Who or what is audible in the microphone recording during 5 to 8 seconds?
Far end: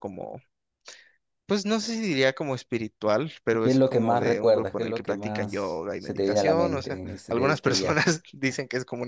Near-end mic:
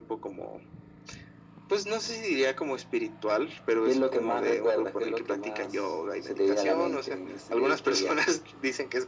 echo only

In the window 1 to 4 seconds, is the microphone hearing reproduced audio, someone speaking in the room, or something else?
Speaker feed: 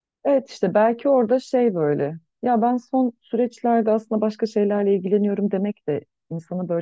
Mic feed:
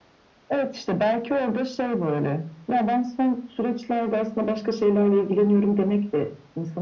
echo only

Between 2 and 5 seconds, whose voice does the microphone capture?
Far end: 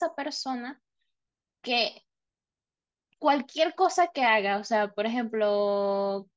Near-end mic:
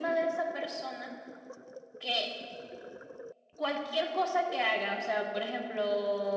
echo only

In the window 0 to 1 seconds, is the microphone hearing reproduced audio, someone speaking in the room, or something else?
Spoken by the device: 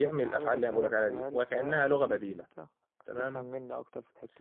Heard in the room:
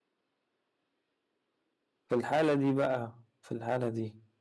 neither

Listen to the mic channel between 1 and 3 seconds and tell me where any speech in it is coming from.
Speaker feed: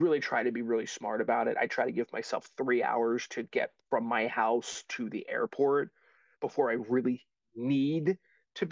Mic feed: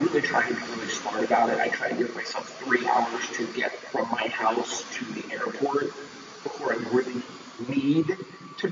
echo only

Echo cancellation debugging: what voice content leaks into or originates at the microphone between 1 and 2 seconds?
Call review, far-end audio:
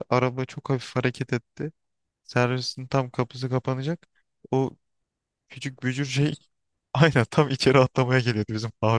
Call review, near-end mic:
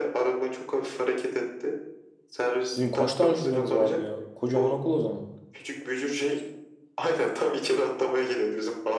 echo only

